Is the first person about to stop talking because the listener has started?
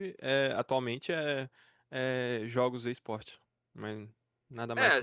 Yes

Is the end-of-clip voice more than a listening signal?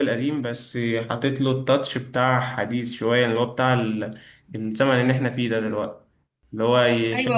No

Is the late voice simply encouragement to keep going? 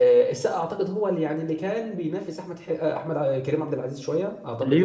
No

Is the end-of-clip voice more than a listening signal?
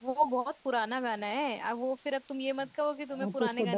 Yes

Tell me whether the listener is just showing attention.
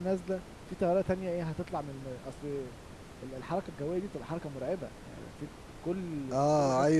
No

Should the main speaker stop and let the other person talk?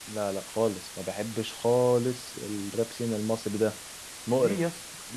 Yes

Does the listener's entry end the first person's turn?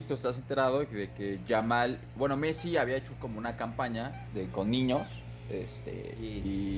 No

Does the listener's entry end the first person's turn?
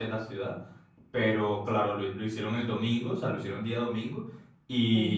No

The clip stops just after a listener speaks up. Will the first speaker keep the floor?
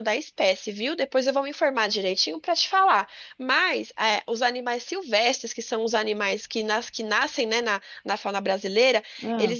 Yes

